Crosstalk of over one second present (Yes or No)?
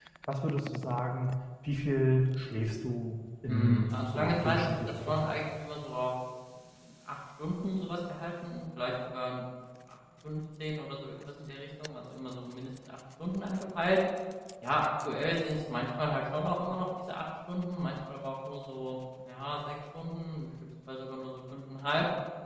Yes